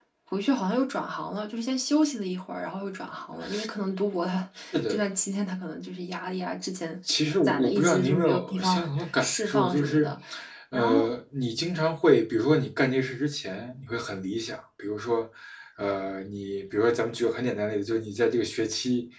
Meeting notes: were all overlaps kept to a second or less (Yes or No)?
No